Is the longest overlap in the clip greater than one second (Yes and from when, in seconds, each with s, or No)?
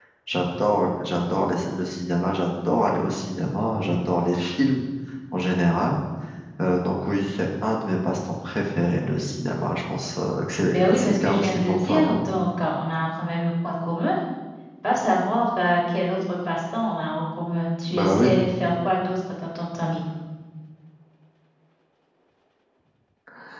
Yes, from 10.7 s